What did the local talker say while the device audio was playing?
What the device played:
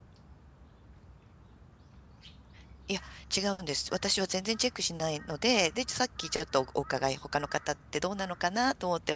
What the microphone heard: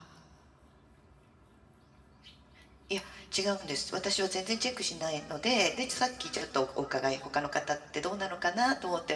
none

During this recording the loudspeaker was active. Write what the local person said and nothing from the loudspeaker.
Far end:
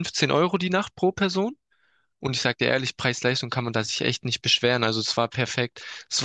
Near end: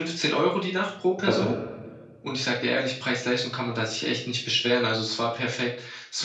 Ab-

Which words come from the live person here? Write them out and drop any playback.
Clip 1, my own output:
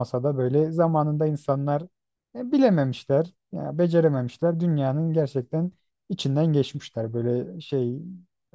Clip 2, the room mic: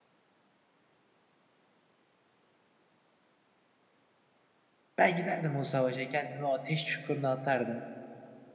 Ben giderdim o savaşa kendimi o ateş çukuruna atardım.

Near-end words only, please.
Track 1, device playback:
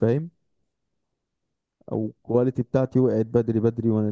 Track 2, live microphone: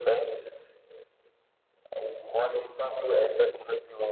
none

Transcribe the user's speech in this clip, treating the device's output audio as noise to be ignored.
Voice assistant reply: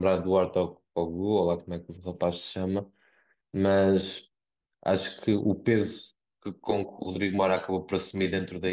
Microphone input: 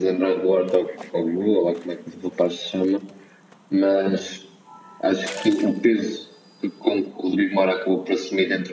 none

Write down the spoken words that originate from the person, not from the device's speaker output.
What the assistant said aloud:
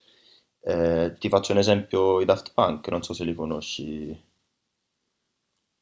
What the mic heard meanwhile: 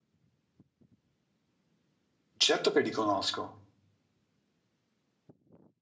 Certo che li conosco.

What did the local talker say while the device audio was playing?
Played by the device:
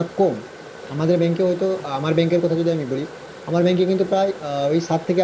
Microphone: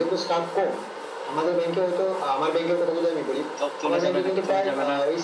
জব চলে যাবে নাকি চলে যাবে না

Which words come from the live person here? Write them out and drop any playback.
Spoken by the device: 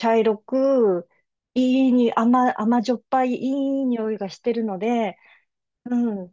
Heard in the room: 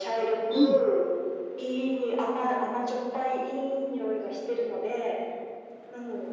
うん。

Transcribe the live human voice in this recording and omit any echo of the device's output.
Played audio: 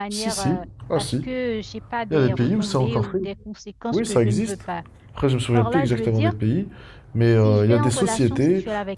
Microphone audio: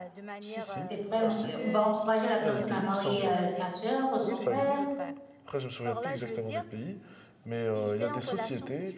c'est vraiment, euh, on va encourager la personne à marier euh, sa sœur ou son frère

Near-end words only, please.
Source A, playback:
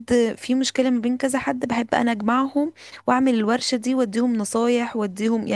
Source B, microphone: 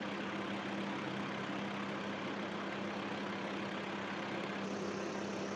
none

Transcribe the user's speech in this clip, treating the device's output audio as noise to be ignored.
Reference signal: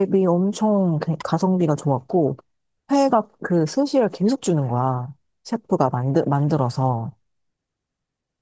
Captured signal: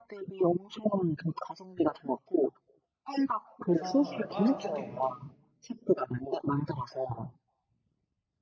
회사랑 바랑 섞인 느낌에

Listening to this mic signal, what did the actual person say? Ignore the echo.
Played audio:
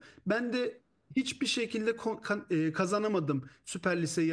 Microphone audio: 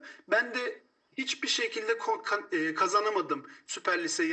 none

